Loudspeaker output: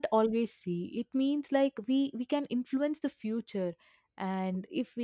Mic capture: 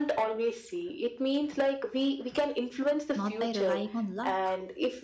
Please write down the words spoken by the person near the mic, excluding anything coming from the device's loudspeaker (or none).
not by relying on luck,